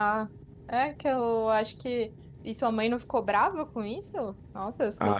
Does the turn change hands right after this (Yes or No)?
Yes